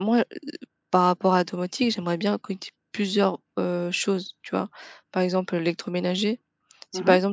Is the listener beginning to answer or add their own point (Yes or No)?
No